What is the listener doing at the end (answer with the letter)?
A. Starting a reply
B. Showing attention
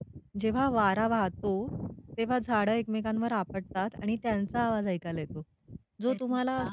B